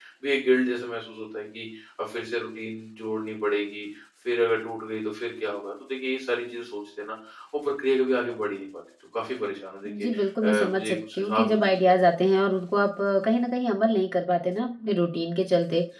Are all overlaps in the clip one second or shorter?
No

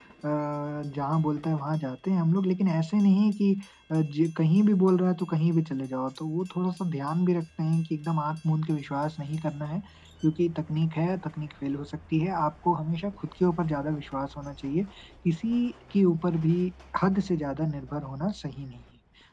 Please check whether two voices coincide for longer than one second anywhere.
No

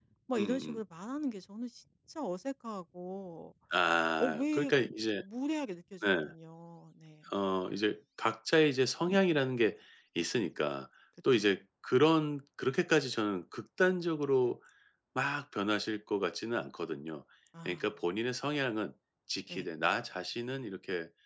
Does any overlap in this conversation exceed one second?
No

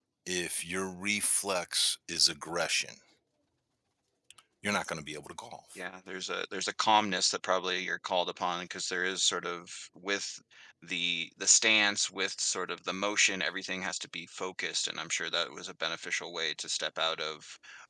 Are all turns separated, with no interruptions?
Yes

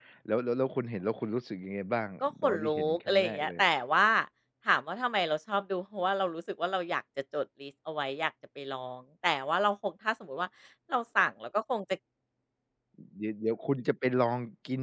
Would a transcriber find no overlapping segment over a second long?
No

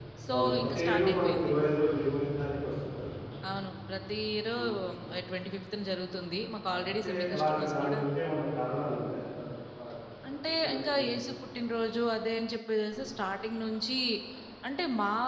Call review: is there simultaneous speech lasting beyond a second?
Yes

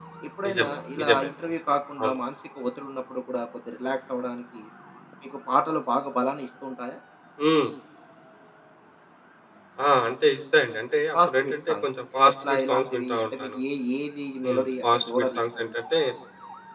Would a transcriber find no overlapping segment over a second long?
No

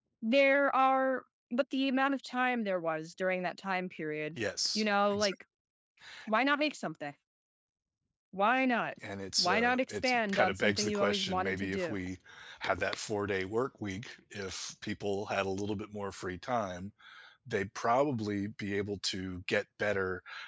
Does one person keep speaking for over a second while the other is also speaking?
Yes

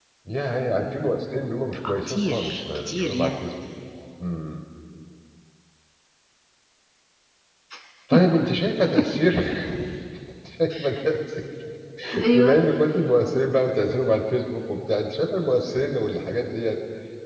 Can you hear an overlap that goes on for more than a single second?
Yes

